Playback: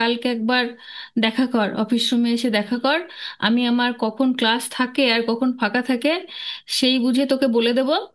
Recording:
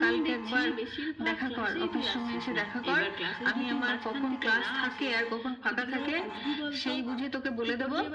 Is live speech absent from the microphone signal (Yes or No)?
No